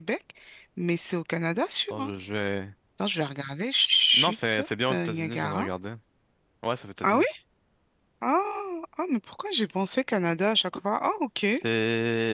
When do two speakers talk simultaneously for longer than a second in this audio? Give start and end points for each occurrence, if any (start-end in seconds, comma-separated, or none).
4.1-5.7